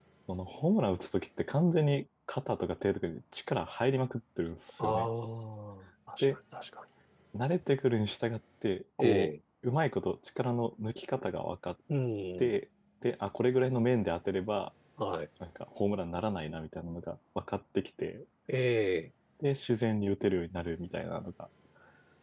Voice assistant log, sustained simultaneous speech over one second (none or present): none